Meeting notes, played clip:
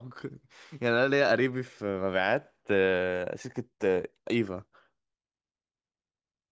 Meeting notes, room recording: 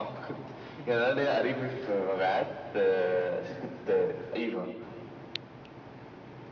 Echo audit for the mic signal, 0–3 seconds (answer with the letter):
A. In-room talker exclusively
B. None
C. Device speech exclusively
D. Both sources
C